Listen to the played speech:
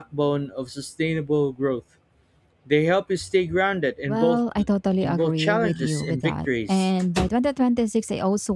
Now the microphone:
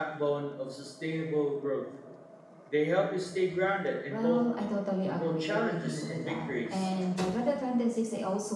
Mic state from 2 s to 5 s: echo only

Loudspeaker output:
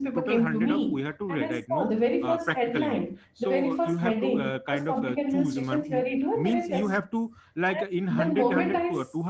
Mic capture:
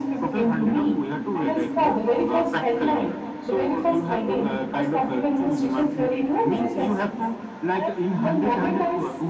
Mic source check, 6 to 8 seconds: echo only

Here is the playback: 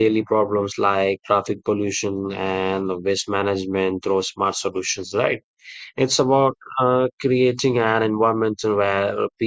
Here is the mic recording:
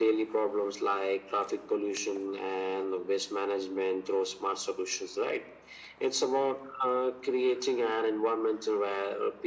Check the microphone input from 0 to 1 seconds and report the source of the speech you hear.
echo only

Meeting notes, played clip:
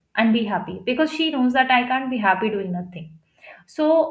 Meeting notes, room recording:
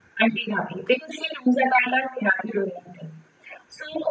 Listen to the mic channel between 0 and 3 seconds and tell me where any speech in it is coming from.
echo only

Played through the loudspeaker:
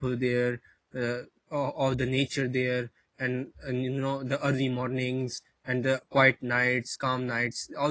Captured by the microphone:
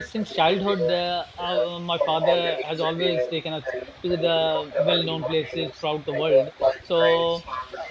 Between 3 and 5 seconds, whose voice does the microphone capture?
both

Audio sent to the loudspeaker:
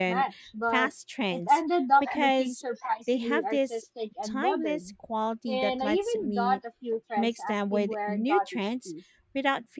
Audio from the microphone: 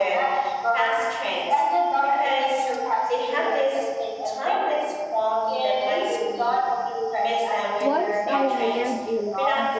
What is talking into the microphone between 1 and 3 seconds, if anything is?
echo only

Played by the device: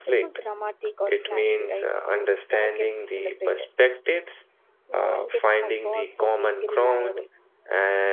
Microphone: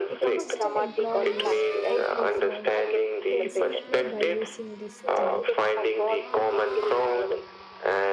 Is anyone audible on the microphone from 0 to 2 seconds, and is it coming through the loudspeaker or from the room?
both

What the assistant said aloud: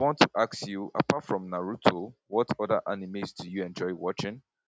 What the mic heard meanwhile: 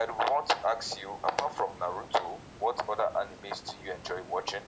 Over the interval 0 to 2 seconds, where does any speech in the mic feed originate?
echo only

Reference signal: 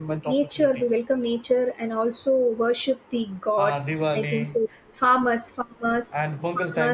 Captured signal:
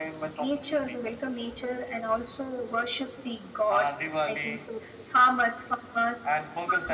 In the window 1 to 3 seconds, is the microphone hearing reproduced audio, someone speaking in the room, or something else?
echo only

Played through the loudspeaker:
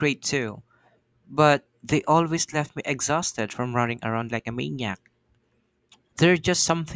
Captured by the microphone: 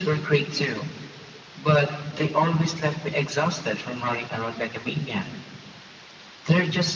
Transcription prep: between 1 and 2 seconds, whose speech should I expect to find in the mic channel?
echo only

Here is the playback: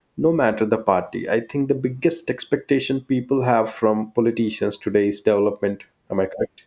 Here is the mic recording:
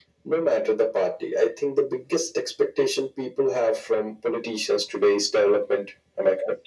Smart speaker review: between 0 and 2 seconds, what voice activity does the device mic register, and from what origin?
echo only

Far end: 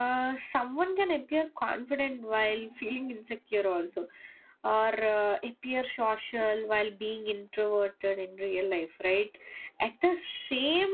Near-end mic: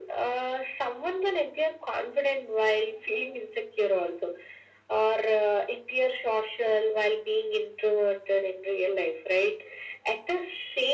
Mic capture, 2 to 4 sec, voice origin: echo only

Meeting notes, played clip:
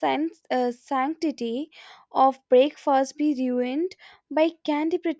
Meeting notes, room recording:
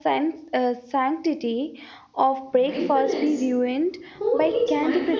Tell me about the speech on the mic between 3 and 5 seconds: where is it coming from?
both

